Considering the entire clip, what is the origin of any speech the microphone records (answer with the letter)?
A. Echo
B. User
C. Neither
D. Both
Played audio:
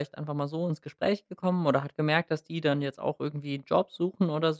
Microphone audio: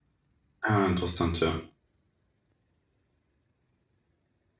B